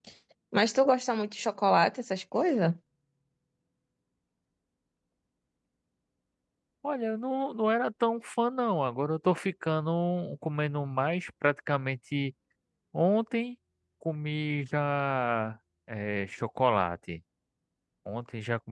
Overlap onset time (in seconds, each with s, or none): none